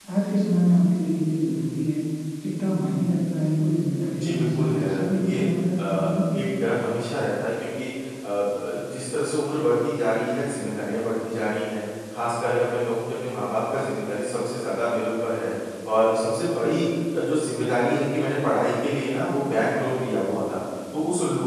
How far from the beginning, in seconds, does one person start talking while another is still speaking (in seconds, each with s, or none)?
4.1 s